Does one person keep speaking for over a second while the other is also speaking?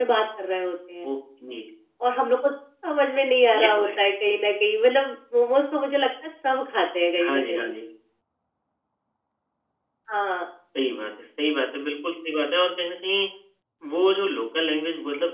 No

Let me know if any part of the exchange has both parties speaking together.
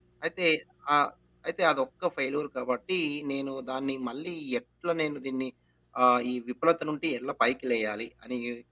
No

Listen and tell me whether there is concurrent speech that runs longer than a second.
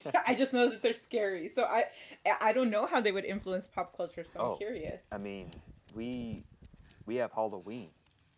No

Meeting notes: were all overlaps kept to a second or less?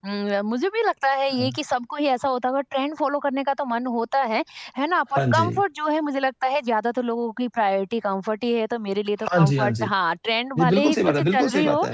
No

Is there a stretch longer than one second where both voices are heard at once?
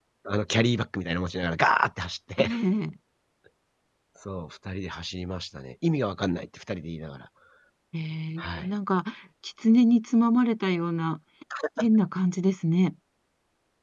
No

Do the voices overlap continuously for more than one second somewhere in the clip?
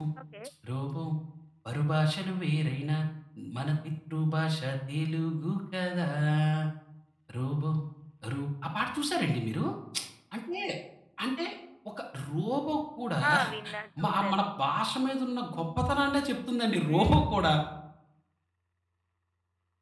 No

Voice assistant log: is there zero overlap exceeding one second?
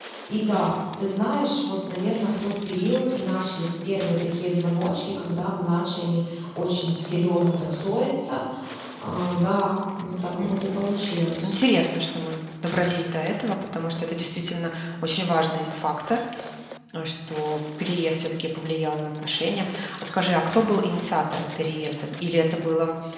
Yes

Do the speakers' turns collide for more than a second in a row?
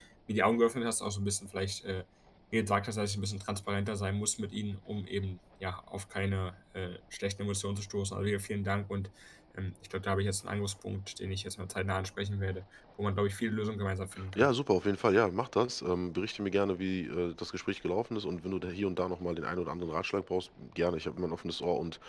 No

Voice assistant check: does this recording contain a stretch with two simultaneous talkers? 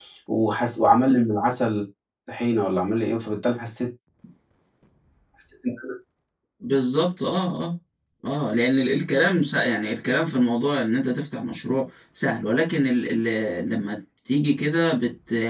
No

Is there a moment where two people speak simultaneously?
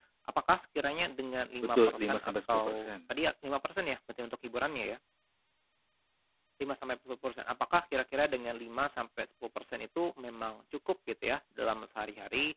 Yes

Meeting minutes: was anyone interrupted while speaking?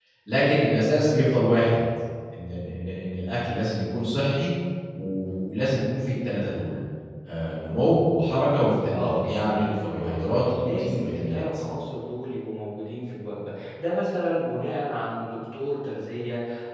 Yes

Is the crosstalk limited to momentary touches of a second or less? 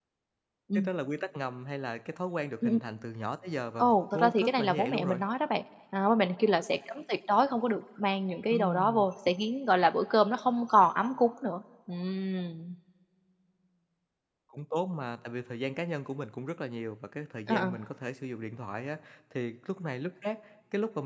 No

